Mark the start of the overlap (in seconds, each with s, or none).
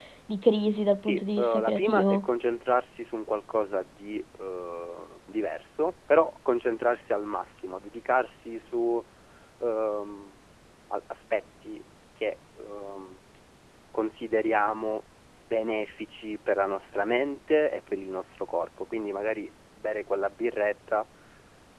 1.0 s